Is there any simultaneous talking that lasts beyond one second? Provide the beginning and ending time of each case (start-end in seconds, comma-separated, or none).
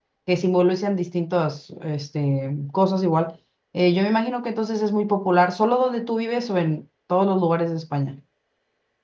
none